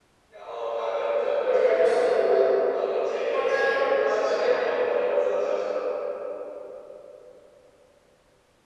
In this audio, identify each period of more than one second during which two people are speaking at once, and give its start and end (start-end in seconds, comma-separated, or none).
3.3-4.5